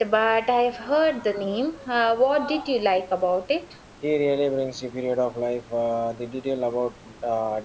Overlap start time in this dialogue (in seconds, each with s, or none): none